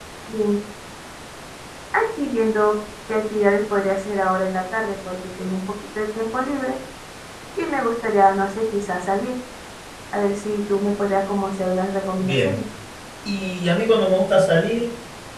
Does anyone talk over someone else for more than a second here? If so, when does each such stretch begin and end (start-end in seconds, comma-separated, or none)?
none